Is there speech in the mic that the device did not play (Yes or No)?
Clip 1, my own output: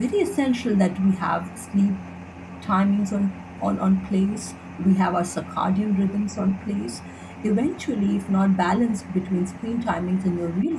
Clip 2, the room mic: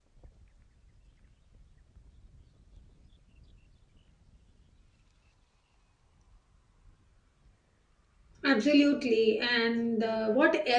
Yes